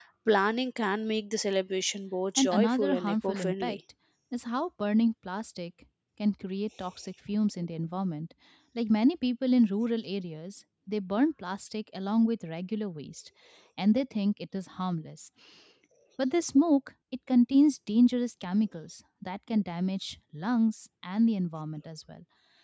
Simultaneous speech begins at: 2.4 s

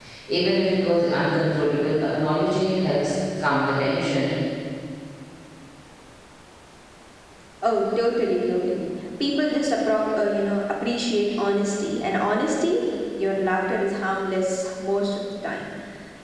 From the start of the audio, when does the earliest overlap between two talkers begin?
none

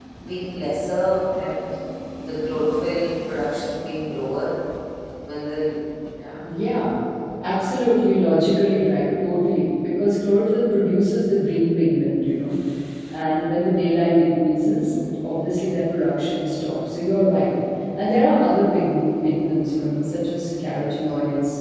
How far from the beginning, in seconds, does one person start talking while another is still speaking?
none

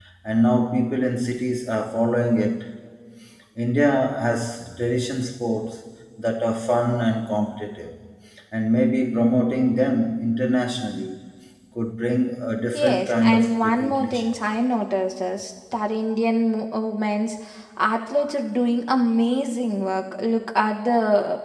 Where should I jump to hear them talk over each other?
12.7 s

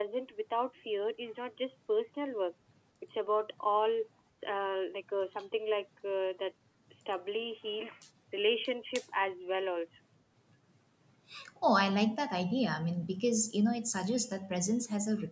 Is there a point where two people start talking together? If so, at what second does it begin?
none

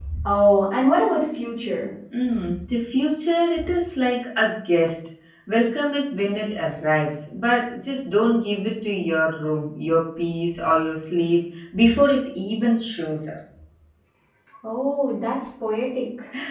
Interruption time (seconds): none

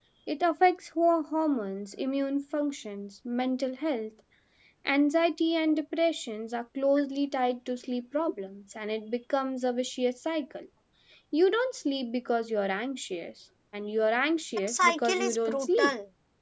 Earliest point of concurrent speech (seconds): 14.7 s

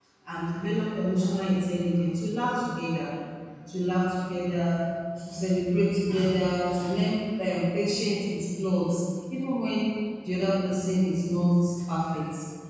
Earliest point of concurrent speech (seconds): none

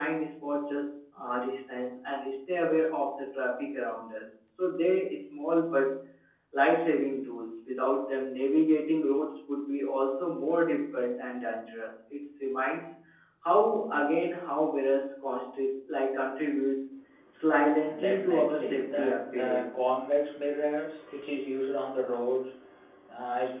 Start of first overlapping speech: 18.0 s

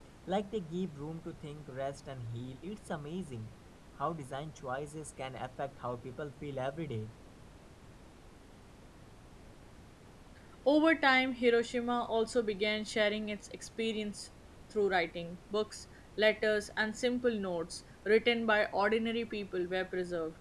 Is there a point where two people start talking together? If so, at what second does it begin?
none

